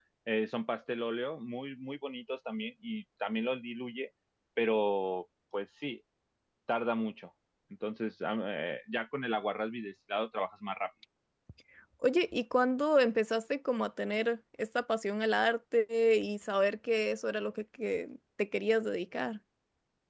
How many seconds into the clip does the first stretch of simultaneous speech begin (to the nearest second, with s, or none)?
none